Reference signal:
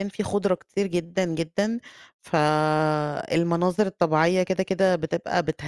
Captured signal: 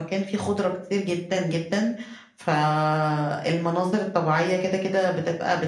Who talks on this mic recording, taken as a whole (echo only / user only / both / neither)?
echo only